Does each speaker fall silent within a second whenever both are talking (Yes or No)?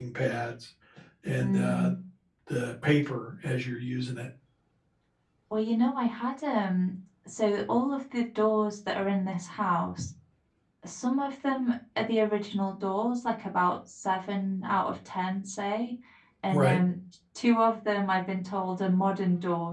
Yes